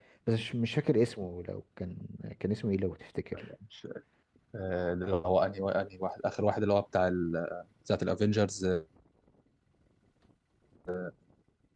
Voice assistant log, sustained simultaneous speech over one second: none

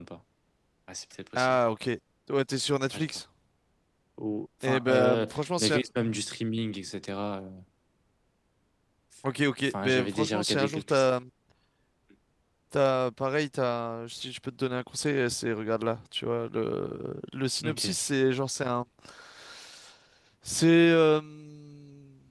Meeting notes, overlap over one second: present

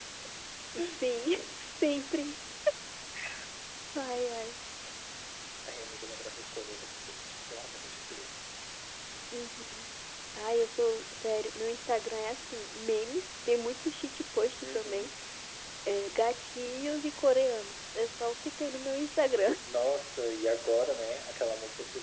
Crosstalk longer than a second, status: none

